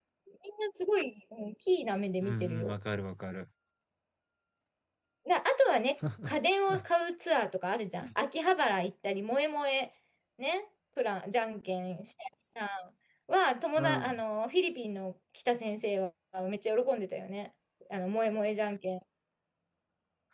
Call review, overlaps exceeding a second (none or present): none